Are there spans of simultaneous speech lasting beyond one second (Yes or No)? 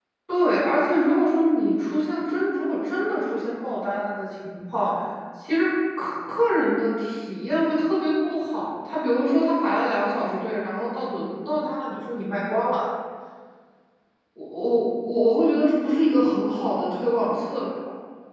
No